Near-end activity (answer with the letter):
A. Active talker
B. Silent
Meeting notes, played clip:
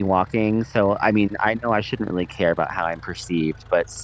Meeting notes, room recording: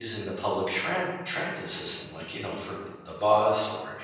A